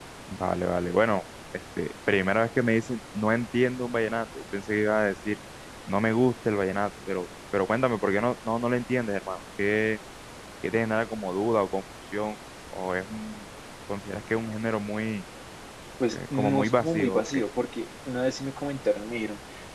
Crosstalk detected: Yes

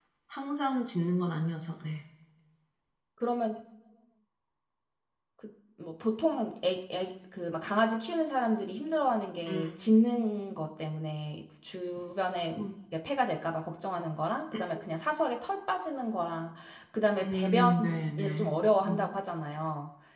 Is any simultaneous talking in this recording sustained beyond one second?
Yes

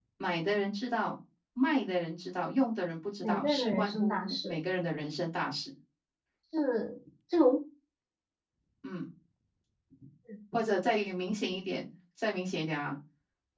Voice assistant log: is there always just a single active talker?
No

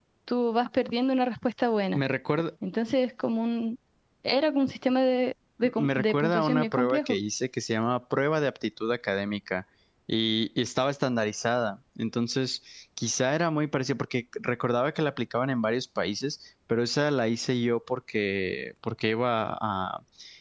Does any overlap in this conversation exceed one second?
Yes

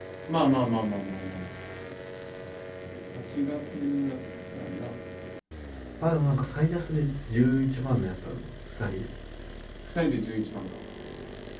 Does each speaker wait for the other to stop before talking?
Yes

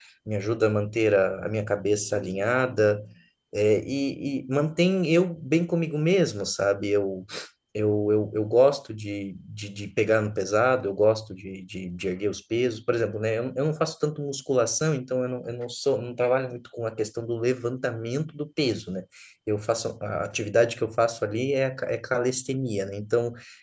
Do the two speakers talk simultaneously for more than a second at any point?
No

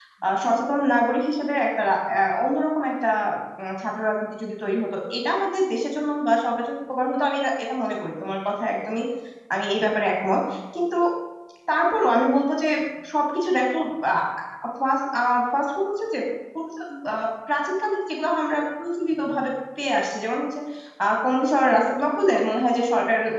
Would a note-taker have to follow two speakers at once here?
No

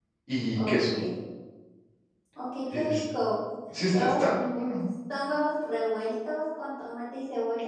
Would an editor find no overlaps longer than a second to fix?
Yes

